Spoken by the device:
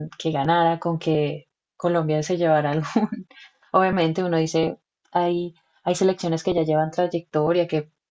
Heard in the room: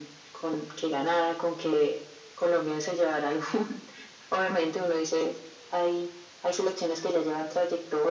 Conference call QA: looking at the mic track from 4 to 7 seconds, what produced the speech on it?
echo only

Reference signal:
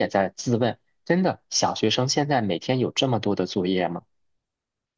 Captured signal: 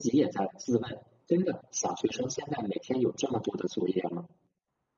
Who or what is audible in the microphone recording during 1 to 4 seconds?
echo only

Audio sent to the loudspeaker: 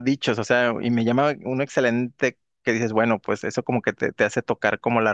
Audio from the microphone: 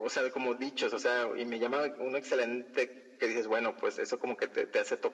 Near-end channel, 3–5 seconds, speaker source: echo only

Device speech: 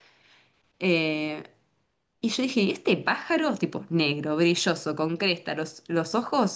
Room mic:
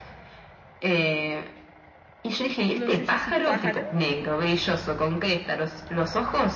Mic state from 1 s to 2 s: echo only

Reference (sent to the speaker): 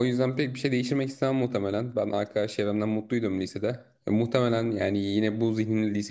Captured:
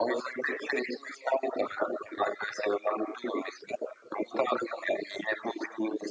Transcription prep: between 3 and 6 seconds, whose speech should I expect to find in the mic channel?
echo only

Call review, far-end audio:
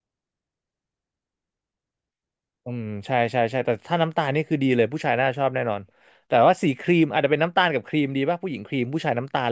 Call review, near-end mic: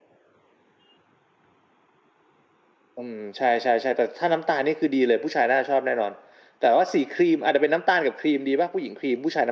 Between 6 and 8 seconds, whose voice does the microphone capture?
echo only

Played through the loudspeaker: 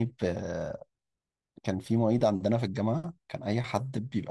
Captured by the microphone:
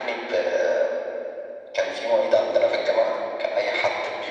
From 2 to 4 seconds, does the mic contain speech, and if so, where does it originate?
echo only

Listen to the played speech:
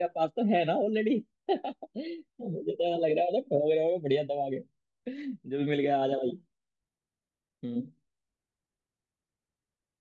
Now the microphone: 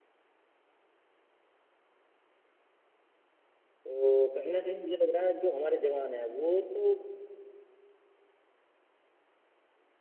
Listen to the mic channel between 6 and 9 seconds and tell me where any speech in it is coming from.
user only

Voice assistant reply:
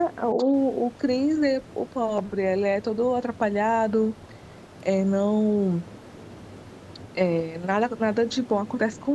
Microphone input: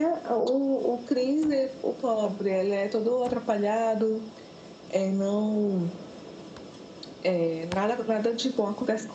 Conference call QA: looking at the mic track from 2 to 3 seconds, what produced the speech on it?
echo only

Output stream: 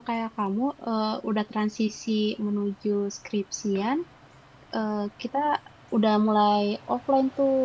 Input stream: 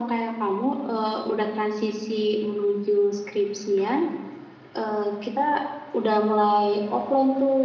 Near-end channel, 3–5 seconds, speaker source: echo only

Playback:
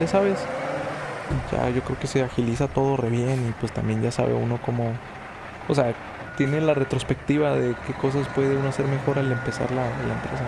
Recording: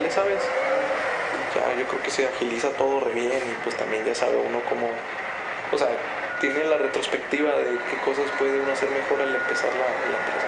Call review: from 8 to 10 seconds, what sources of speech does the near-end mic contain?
echo only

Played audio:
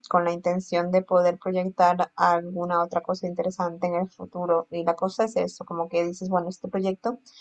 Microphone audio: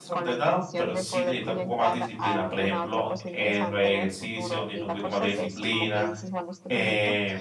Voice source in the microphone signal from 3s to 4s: both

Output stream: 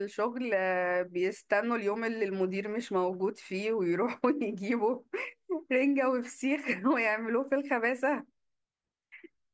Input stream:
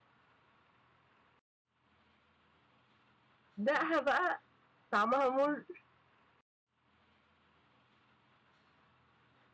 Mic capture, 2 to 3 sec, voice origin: neither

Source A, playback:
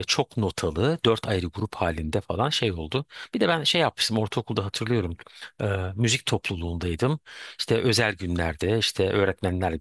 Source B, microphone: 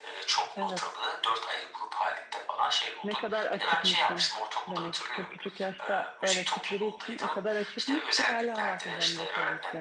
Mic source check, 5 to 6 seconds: both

